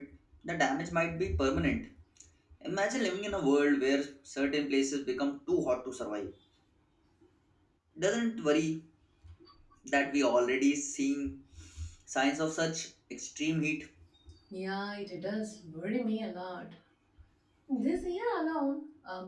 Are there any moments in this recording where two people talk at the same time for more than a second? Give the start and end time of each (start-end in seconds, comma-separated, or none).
none